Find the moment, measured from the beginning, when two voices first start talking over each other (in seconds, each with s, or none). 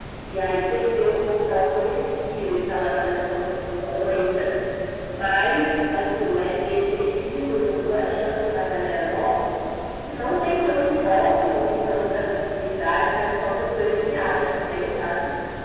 none